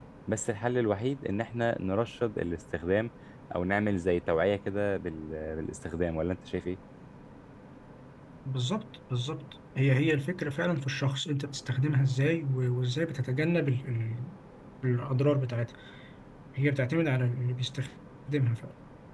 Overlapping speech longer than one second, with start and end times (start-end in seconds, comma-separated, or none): none